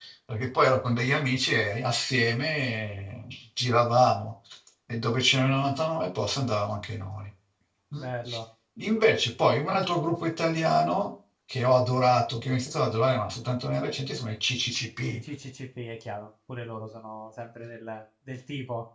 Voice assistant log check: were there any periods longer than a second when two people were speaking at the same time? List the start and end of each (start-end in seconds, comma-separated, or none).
none